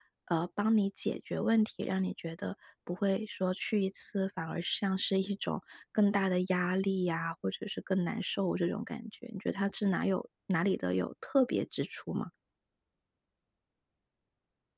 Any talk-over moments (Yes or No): No